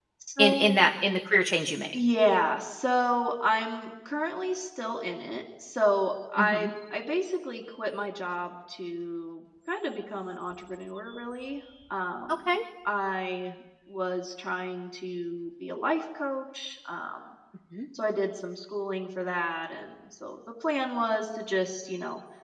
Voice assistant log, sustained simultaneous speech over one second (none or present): none